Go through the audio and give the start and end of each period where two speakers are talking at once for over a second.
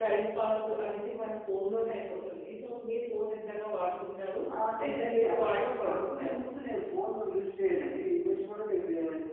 4.9-6.4

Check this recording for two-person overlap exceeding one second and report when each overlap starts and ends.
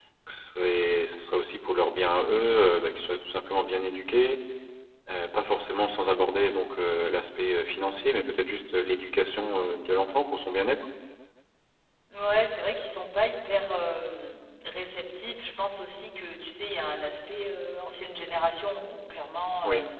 none

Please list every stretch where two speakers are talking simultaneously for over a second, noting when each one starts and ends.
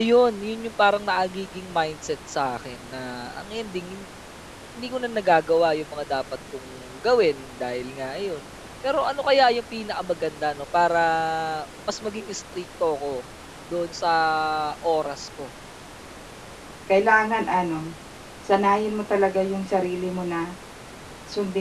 none

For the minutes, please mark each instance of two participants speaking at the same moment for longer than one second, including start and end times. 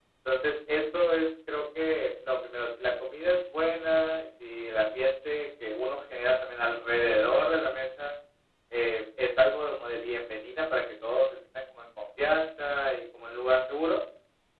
none

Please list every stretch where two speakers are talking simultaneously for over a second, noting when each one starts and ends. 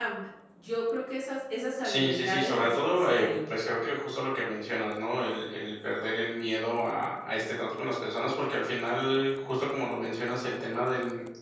1.9-3.4

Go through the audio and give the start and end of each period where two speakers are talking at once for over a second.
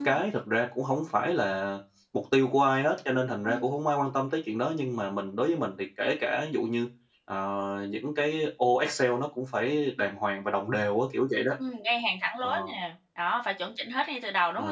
none

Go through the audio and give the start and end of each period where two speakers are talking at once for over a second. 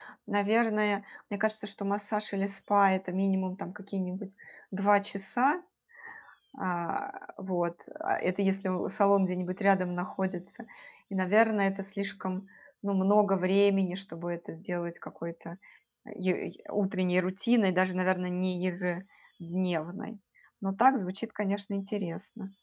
none

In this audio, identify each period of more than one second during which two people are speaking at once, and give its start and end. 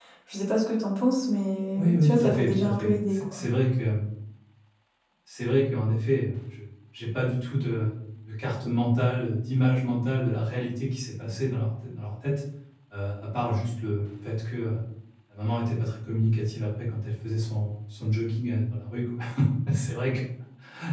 1.8-3.4

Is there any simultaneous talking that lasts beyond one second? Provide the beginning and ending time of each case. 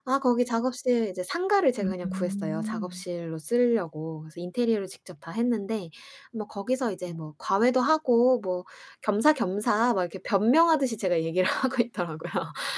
1.8-3.0

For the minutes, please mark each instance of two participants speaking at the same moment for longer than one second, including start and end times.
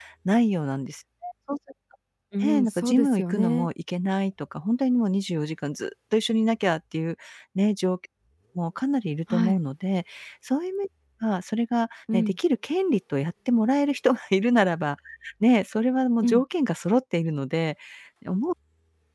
2.4-3.7

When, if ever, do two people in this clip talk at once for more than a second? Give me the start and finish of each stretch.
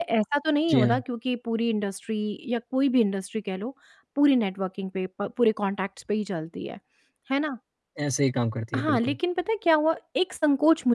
none

